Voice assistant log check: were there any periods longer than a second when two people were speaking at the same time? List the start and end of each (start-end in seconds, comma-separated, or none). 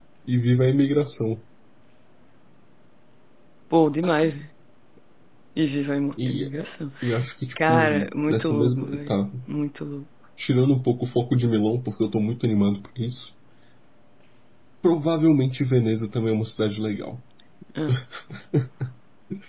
7.7-9.2